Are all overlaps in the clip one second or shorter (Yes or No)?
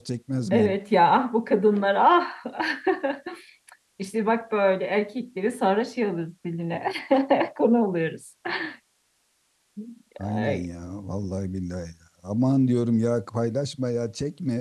Yes